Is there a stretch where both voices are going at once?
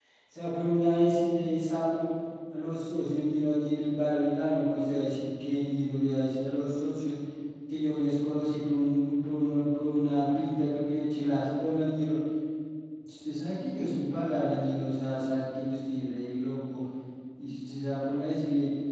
No

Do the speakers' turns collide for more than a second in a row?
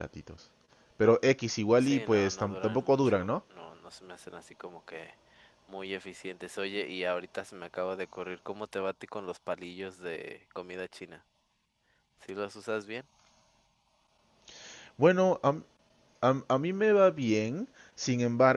Yes, from 1.8 s

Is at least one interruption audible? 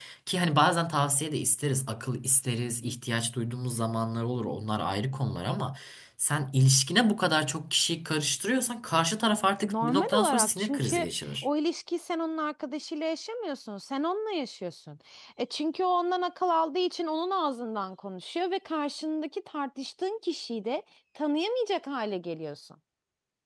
Yes, from 9.6 s

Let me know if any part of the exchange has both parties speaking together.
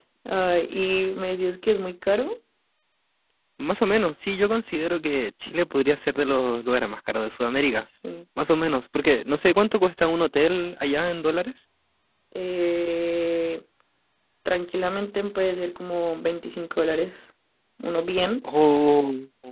No

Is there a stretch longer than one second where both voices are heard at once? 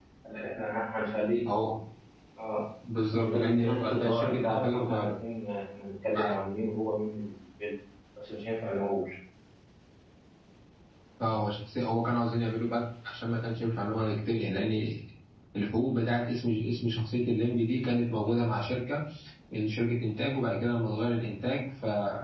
Yes, from 3.1 s

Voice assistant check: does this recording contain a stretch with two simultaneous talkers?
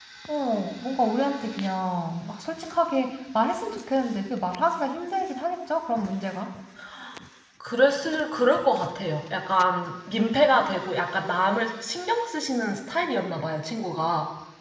No

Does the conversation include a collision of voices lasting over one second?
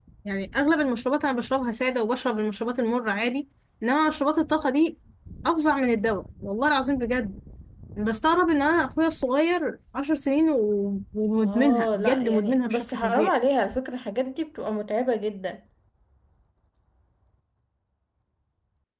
Yes, from 11.4 s

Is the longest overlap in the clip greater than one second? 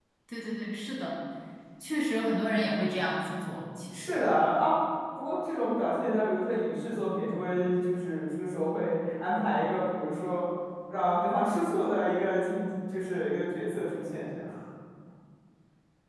No

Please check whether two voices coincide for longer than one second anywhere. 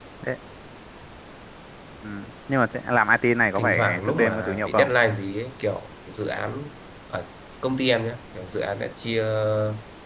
Yes, from 3.6 s

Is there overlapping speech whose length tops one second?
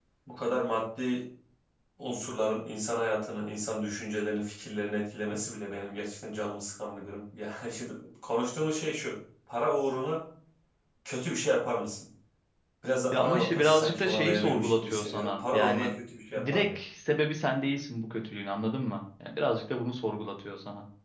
Yes, from 13.1 s

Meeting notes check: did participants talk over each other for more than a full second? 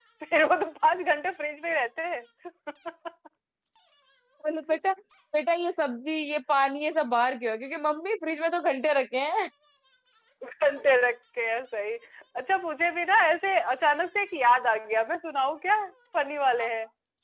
No

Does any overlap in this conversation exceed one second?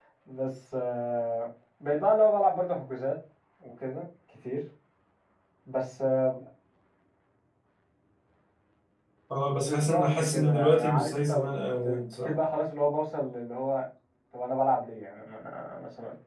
Yes, from 9.4 s

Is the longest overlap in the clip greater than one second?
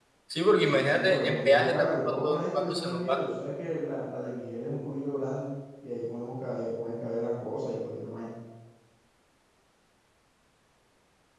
Yes, from 0.6 s

